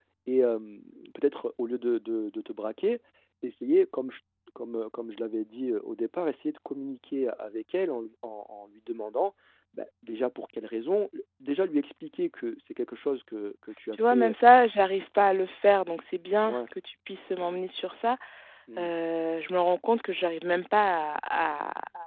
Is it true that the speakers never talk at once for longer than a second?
Yes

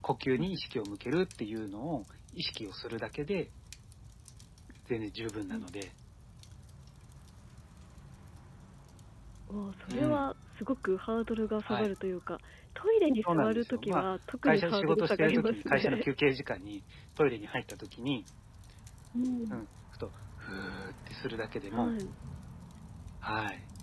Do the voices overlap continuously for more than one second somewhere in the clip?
Yes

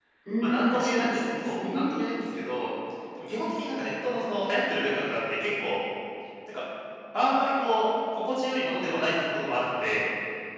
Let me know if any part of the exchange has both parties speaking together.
Yes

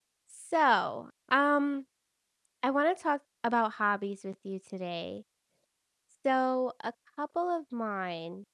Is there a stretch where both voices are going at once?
No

